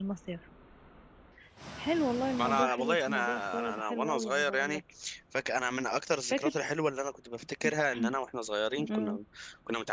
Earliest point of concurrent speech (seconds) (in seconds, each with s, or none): 2.4 s